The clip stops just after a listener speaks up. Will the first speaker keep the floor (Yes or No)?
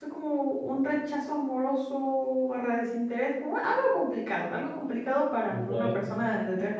Yes